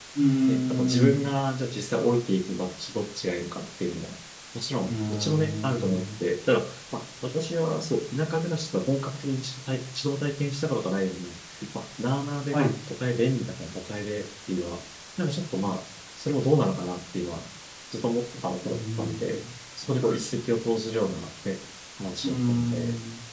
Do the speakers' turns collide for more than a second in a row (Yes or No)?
Yes